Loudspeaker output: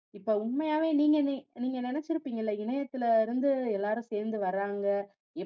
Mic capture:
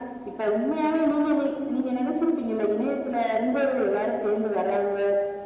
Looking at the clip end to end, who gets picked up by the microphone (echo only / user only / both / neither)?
echo only